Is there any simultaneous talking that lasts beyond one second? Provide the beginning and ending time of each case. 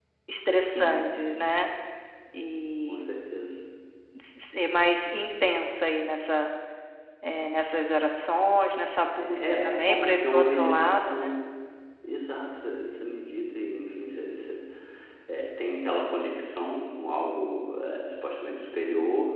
9.2-11.3

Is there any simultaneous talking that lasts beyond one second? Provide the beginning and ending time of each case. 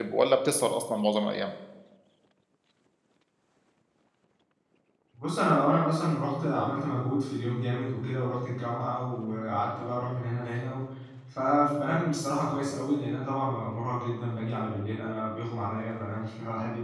none

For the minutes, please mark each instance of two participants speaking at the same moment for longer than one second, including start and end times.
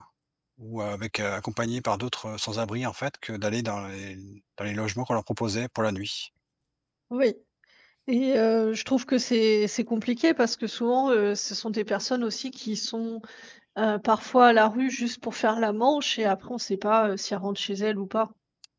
none

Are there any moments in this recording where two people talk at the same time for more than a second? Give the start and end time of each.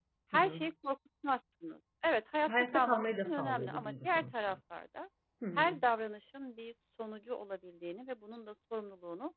2.4-4.5

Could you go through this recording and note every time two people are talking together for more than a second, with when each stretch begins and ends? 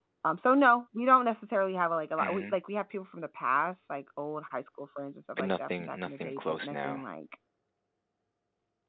5.4-7.0

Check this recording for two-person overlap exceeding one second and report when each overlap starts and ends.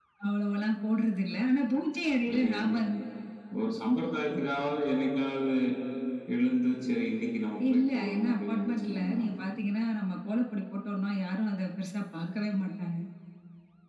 7.7-9.2

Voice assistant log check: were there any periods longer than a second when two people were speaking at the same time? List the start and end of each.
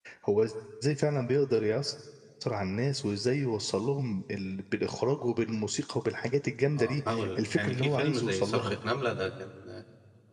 6.8-8.7

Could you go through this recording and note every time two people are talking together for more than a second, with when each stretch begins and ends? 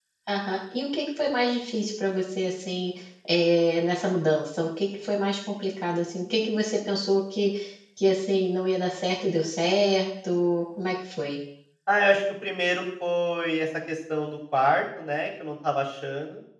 none

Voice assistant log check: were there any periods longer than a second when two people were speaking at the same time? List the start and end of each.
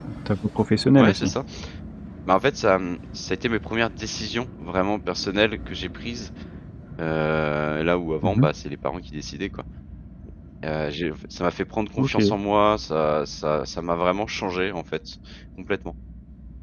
none

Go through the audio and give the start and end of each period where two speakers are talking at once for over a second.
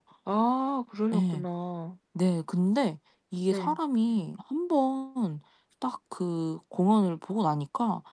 none

